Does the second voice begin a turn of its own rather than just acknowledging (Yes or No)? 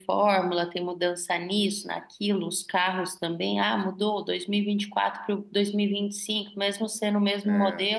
No